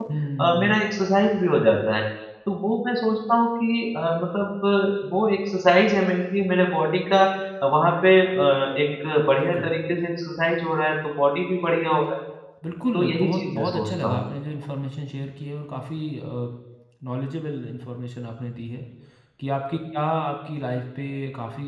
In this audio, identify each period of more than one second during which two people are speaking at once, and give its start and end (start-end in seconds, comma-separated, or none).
12.9-14.2